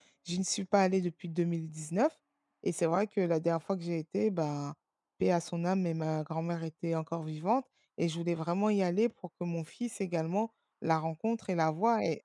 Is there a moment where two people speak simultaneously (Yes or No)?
No